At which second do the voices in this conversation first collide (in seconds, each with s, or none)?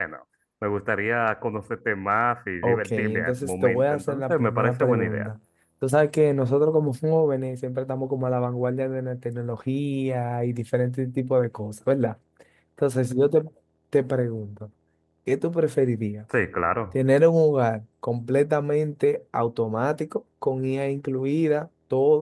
2.6 s